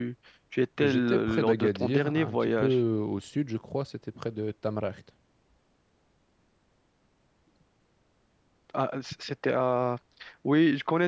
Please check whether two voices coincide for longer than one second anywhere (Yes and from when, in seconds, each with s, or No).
Yes, from 0.8 s